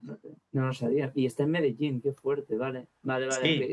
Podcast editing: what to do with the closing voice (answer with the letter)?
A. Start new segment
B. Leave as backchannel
B